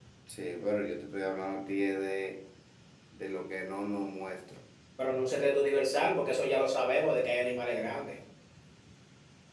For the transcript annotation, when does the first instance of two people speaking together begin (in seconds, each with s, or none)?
none